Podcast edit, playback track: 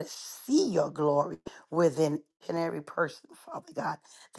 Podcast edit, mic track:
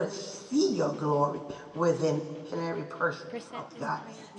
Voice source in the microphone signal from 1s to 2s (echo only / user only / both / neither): echo only